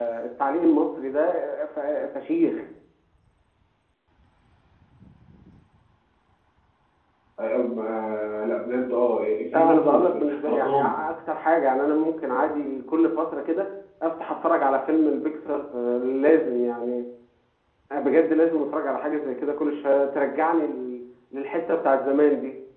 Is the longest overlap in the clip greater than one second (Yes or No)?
Yes